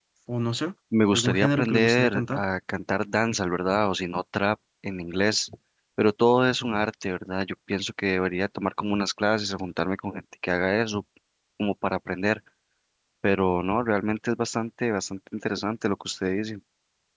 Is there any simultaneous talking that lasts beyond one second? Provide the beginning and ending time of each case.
1.1-2.4

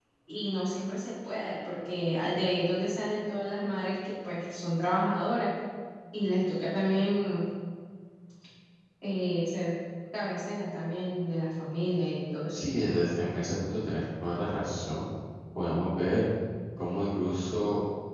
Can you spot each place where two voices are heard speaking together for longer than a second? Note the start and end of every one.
none

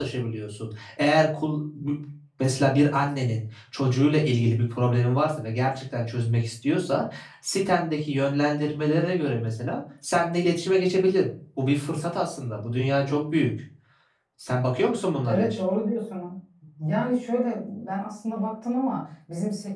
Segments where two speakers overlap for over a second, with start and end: none

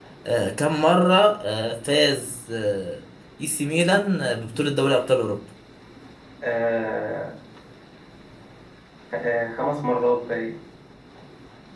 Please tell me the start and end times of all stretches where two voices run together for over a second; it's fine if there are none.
none

